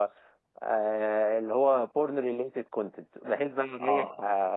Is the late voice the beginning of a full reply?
No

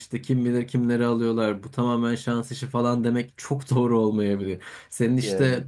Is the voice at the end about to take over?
No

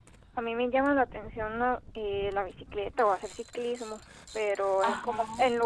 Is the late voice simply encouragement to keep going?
Yes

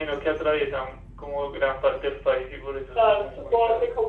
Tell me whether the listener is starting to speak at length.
Yes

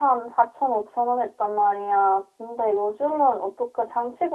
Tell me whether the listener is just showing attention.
Yes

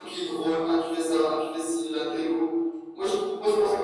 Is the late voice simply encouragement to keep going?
Yes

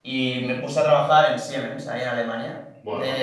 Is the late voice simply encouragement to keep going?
Yes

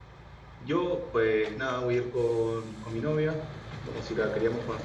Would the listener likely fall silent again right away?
Yes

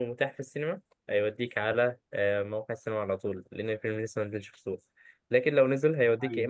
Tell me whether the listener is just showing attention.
Yes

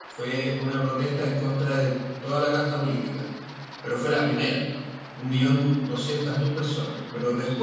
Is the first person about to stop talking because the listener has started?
No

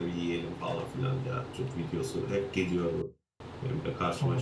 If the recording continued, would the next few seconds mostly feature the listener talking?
Yes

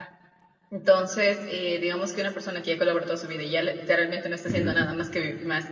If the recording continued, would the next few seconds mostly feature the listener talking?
No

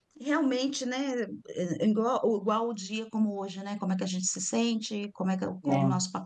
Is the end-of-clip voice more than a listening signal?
No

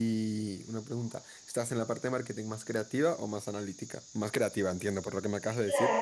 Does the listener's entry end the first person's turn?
Yes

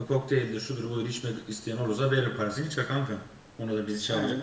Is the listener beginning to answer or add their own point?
Yes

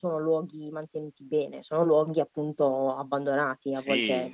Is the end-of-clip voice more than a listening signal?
Yes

